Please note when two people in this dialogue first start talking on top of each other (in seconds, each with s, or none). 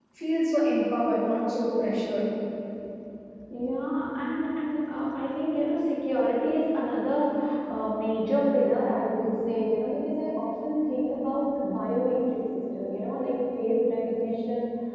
none